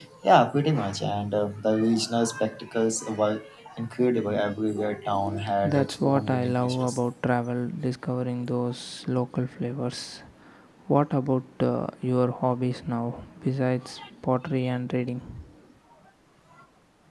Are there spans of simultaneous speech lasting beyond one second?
Yes, from 5.6 s

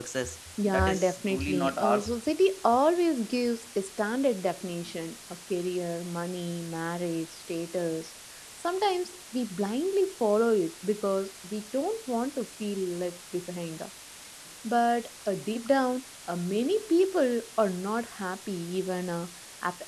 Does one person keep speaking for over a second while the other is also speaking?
Yes, from 0.6 s

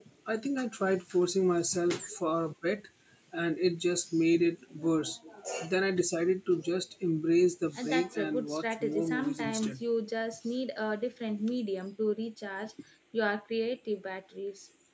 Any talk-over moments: Yes, from 7.7 s

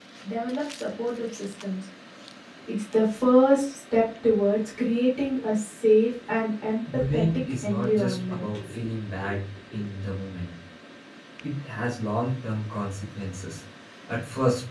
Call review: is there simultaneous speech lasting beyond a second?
Yes, from 7.1 s

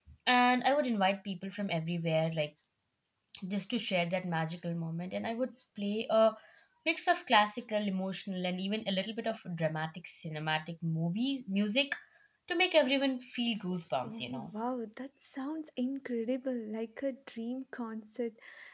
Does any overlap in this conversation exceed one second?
No

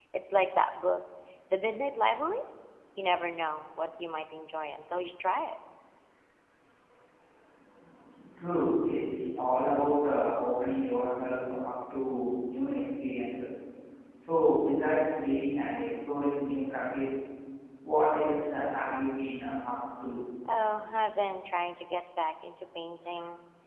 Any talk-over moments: No

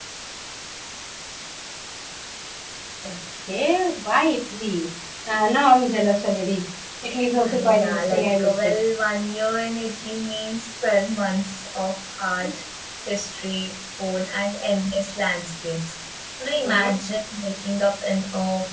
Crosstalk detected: Yes, from 7.5 s

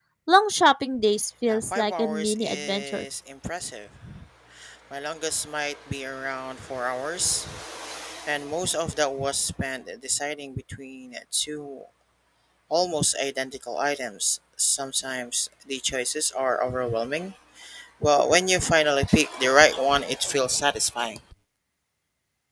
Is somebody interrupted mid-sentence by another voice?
Yes, from 1.5 s

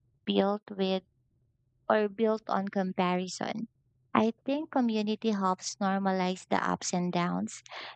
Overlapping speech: No

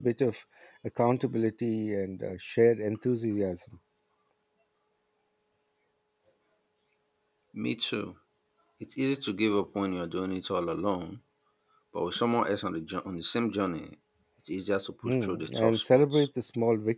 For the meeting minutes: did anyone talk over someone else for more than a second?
Yes, from 15.0 s

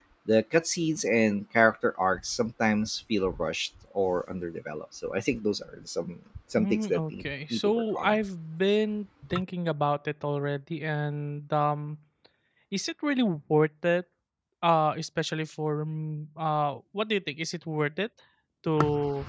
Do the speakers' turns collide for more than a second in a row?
Yes, from 6.6 s

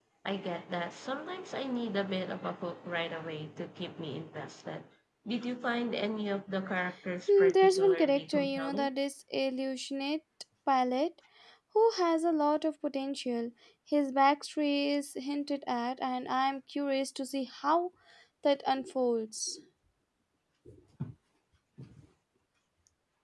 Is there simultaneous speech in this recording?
Yes, from 7.3 s

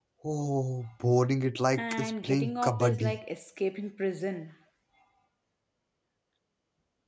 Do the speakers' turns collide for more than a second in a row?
Yes, from 1.8 s

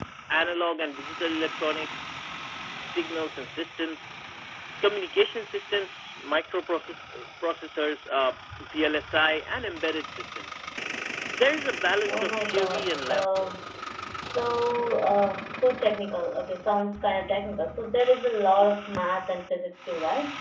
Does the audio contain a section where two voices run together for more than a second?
Yes, from 12.1 s

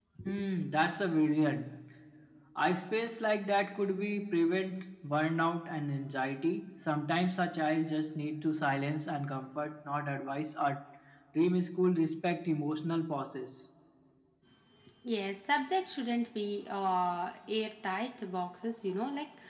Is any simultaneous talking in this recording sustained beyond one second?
No

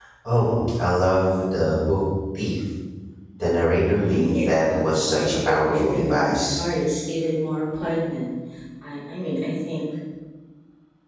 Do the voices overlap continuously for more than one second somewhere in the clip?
Yes, from 3.9 s

